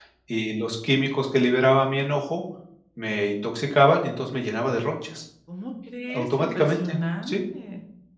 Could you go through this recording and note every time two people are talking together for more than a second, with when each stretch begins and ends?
6.1-7.3

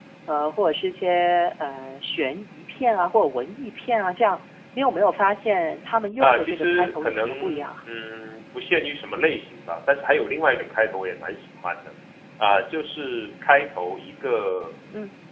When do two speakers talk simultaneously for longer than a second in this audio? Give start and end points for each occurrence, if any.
6.2-7.7

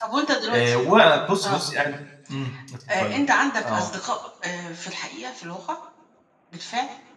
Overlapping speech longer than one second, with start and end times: none

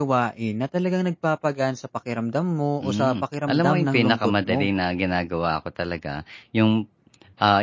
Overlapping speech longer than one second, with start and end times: 2.8-4.7

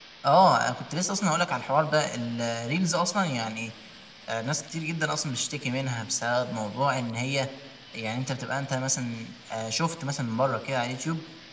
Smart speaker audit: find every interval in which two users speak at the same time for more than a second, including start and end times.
none

